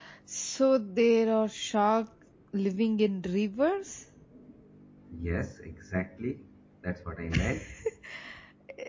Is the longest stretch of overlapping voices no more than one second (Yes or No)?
Yes